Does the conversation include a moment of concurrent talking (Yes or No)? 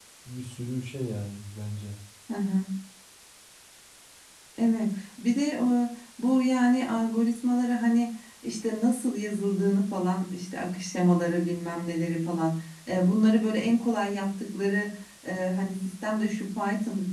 No